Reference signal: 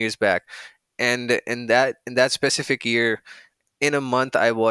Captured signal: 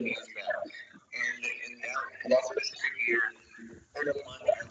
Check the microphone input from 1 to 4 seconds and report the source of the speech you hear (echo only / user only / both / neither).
echo only